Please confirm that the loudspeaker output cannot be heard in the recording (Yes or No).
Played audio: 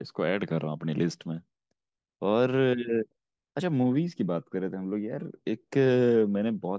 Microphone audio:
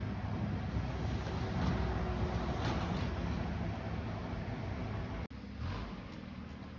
Yes